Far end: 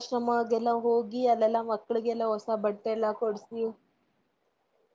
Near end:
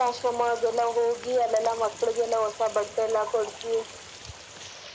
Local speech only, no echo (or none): none